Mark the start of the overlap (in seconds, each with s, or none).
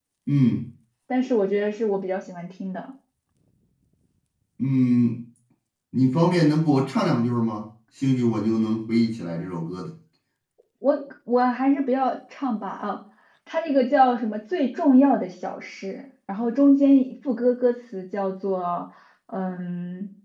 none